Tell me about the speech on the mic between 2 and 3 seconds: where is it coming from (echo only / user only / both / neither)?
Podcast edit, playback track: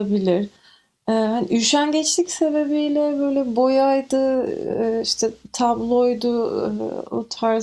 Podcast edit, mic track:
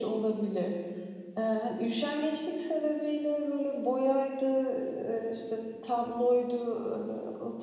echo only